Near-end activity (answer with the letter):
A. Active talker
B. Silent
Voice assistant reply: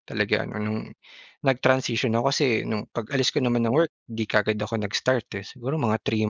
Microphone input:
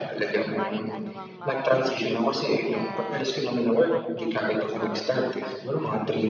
A